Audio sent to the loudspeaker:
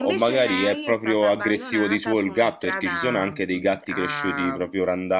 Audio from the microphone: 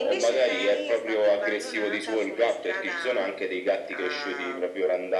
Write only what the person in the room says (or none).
none